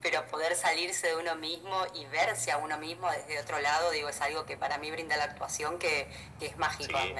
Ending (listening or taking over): listening